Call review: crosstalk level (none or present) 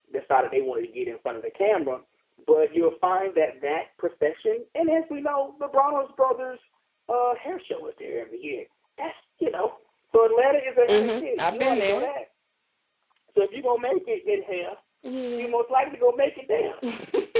present